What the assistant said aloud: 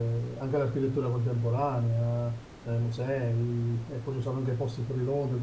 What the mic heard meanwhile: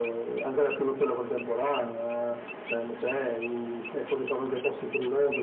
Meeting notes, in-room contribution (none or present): none